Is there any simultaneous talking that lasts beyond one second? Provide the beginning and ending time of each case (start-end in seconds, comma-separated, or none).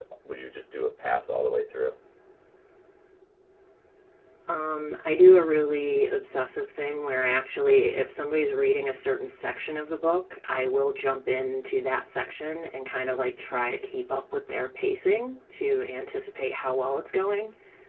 none